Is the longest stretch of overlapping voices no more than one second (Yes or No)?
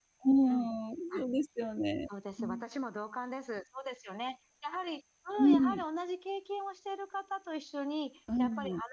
Yes